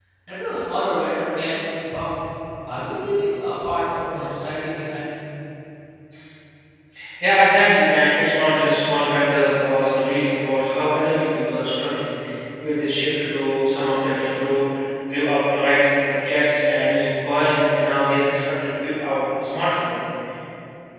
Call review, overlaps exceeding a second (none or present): none